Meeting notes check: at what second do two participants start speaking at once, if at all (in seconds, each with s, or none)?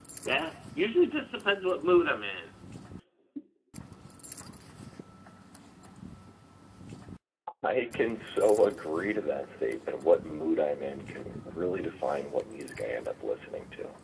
none